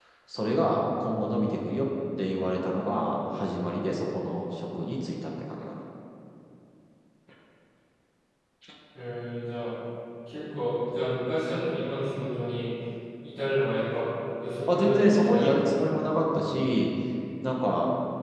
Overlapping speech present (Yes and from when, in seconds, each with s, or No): Yes, from 14.7 s